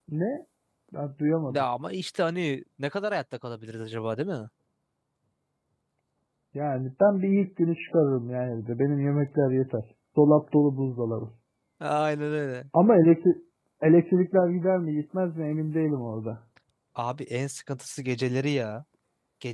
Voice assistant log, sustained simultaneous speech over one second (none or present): none